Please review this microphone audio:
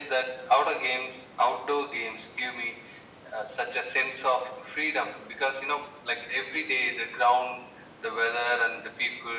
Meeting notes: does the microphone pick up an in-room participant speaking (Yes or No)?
No